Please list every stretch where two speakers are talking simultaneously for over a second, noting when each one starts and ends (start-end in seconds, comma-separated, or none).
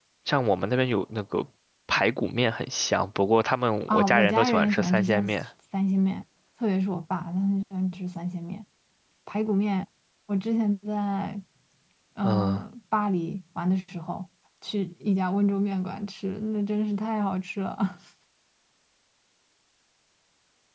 3.9-5.3